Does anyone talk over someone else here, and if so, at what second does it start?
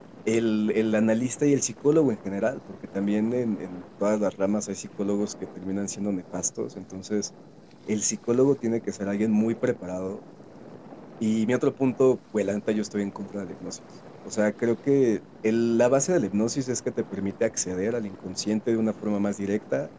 none

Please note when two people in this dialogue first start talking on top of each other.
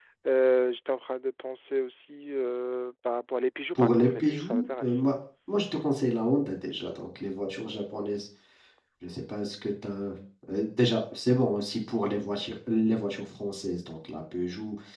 3.8 s

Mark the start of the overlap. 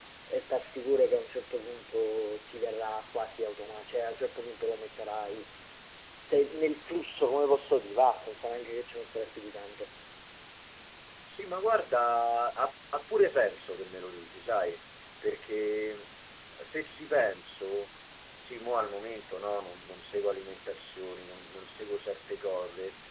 none

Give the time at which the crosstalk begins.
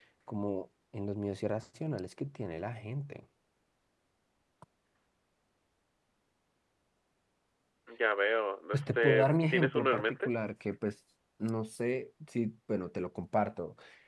8.7 s

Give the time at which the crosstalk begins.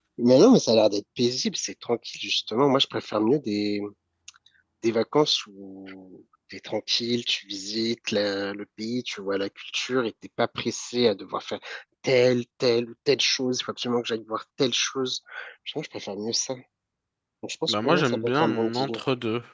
17.7 s

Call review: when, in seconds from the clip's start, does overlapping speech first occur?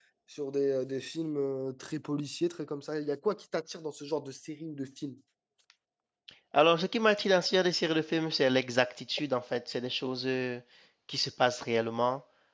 none

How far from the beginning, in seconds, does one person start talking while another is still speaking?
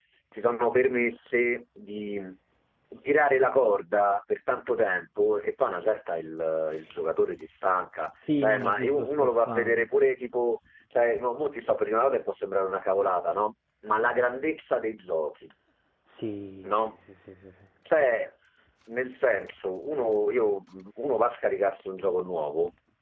8.4 s

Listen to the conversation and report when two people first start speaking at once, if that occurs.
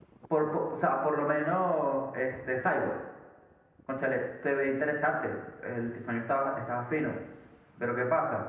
none

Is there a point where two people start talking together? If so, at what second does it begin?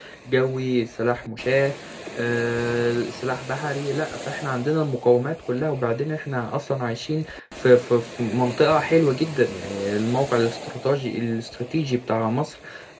none

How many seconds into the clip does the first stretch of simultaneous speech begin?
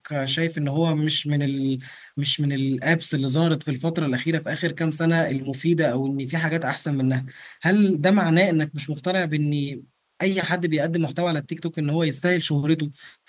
none

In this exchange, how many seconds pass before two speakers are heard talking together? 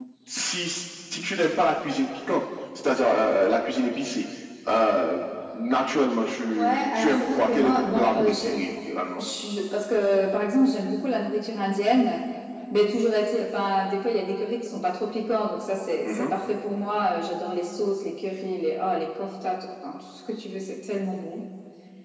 6.6 s

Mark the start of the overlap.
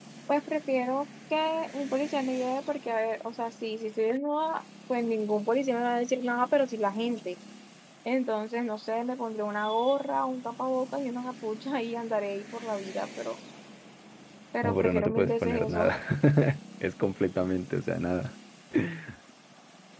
14.6 s

